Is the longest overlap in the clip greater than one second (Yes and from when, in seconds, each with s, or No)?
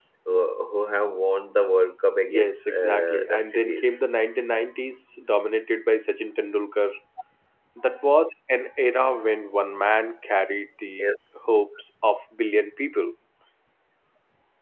Yes, from 2.3 s